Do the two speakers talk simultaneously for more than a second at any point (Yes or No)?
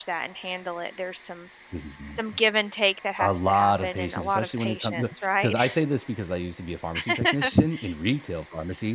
Yes